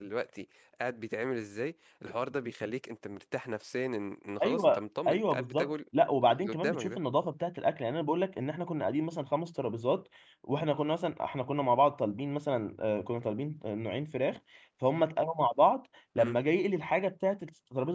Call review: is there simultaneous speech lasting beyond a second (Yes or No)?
Yes